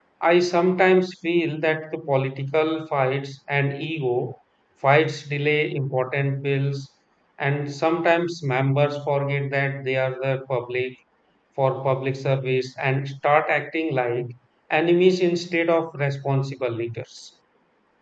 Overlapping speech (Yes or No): No